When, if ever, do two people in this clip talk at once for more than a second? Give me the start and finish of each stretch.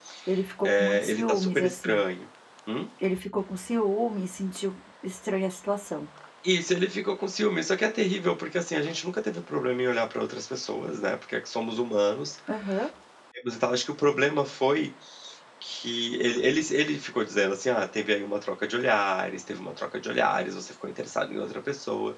0.7-2.0

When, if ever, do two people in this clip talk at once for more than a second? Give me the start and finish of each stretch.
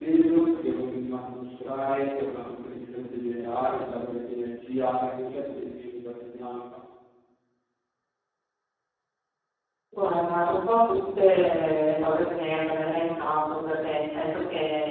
none

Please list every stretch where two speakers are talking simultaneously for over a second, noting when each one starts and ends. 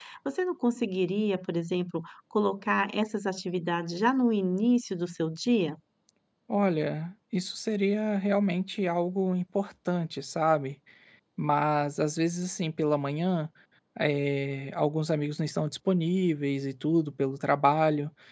none

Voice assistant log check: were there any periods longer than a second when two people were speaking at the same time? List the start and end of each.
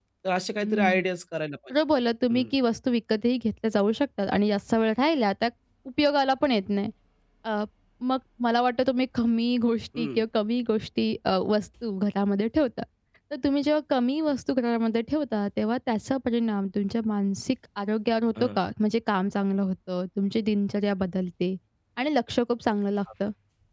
none

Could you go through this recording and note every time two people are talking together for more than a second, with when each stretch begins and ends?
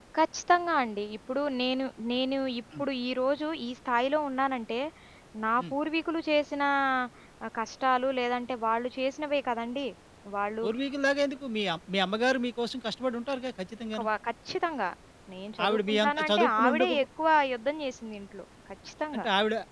15.6-16.9

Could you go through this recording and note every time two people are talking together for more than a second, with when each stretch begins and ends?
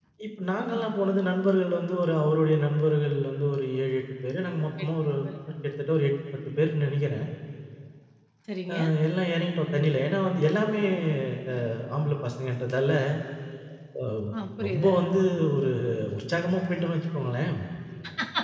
none

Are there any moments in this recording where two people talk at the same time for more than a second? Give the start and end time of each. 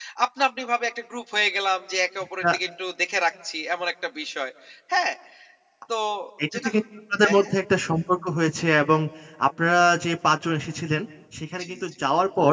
none

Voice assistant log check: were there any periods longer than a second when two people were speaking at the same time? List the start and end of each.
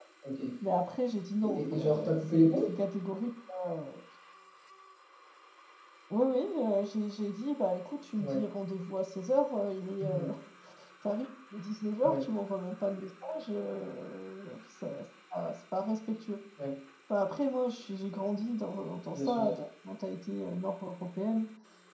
1.4-2.7

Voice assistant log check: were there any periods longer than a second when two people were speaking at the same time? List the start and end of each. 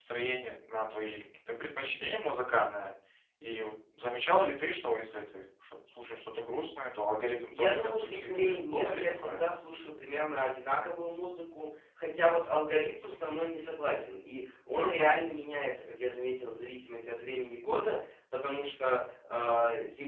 7.5-9.4

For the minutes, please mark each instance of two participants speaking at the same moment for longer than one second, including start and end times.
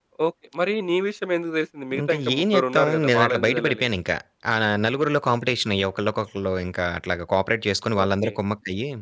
2.0-3.9

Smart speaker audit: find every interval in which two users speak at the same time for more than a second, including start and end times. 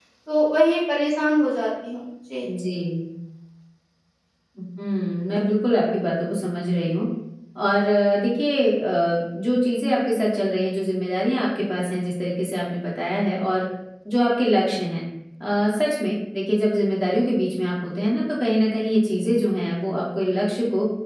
none

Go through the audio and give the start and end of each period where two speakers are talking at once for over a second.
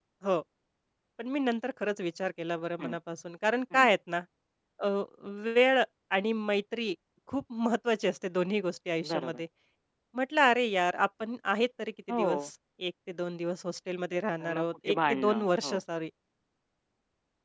14.4-15.8

